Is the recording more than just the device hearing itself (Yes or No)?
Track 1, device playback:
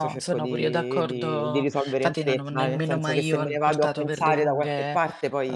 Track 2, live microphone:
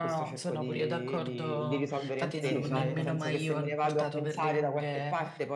Yes